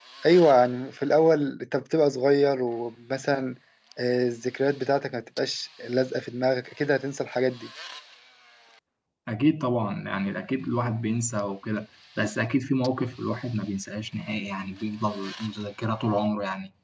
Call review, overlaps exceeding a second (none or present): none